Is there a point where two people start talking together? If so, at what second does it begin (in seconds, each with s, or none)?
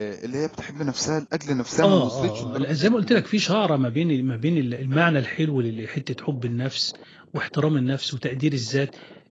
1.8 s